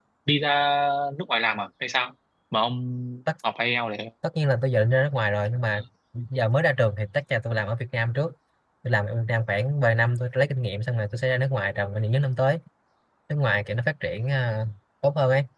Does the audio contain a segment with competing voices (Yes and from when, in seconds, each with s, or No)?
No